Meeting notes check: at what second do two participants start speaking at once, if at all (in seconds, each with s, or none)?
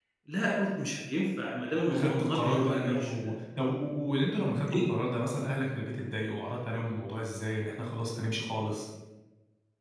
1.9 s